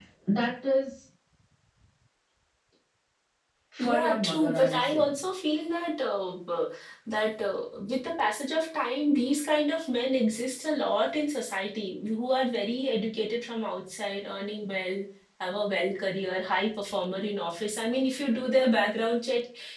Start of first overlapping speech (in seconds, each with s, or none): 3.8 s